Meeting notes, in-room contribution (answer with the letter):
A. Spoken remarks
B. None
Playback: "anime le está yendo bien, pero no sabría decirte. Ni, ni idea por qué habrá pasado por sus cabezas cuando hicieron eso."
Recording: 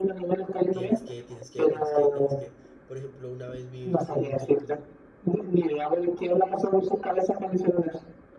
A